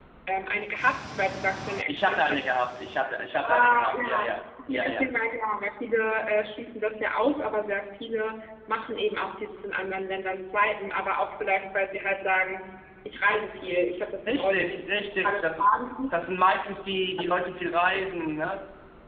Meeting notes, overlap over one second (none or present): present